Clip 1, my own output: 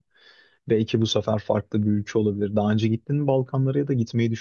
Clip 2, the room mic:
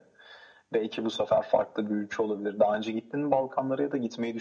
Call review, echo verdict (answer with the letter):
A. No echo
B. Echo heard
B